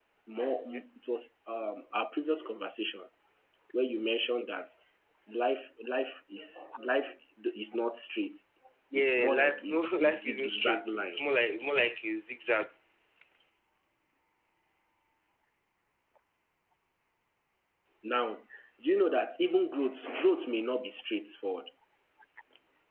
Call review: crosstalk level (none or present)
present